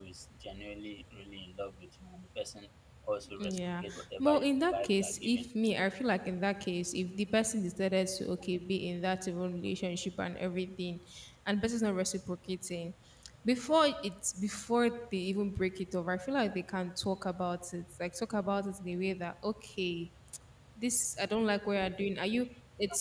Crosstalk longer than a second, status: present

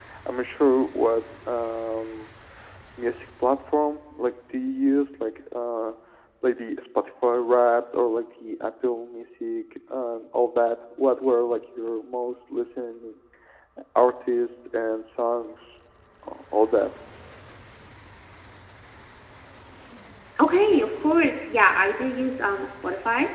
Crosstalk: none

